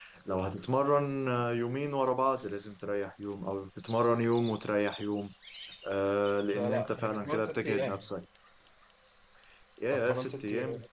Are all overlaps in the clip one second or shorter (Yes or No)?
No